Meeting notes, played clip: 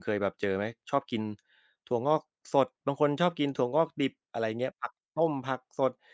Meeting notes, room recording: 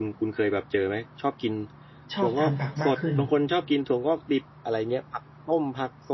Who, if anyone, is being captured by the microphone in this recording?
both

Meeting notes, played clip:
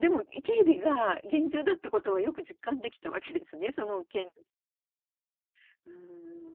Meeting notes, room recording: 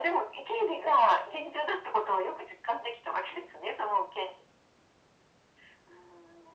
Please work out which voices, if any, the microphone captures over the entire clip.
echo only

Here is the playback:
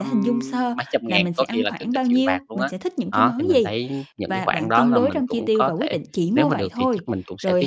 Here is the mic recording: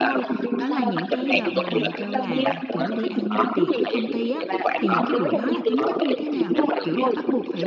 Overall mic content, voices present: both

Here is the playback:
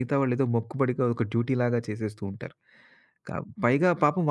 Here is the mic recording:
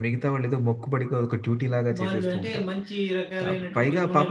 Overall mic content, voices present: both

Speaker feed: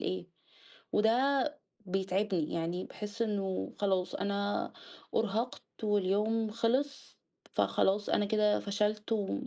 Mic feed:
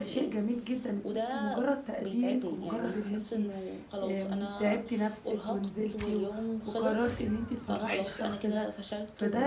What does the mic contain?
both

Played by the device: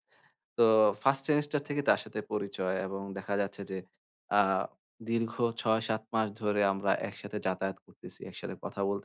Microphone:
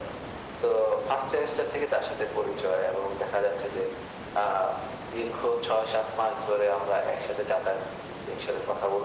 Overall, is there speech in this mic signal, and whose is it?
echo only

